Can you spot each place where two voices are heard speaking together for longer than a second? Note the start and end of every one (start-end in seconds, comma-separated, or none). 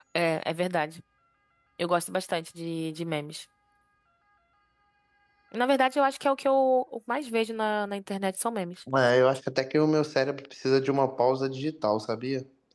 none